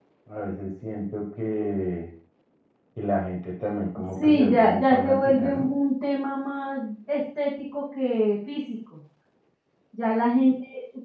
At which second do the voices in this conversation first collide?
4.2 s

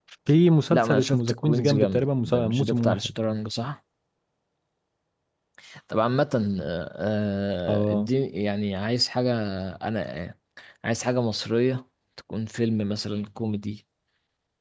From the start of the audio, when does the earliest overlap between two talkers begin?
0.7 s

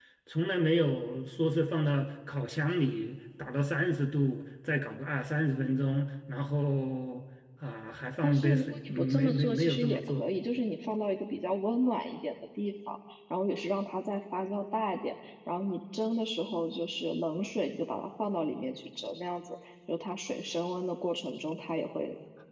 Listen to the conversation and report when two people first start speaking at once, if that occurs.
8.2 s

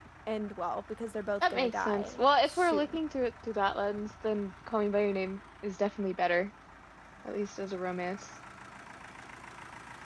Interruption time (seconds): 1.4 s

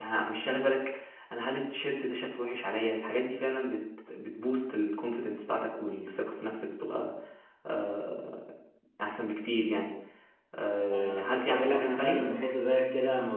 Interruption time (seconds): 10.9 s

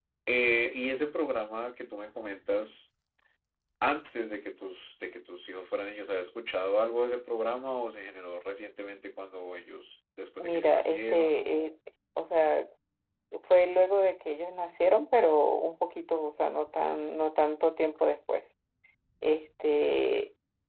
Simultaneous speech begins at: 10.4 s

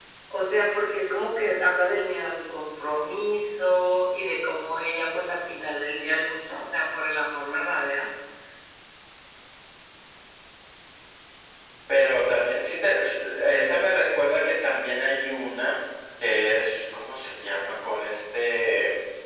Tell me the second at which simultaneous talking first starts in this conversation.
none

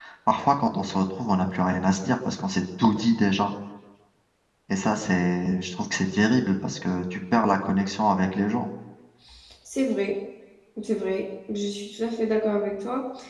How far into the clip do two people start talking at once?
none

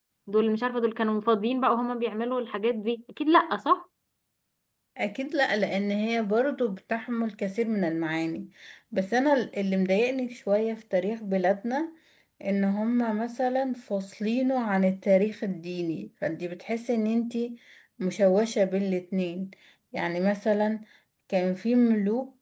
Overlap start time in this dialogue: none

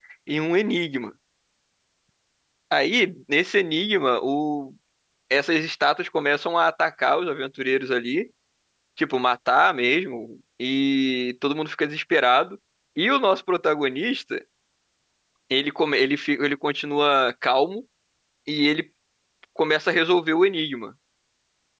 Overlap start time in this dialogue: none

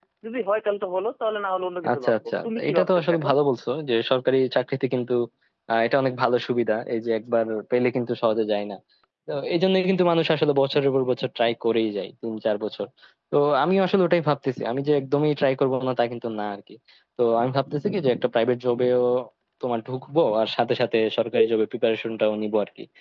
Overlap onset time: 1.8 s

